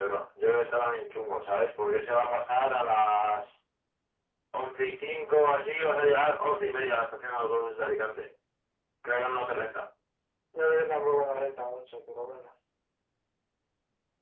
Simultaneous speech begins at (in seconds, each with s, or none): none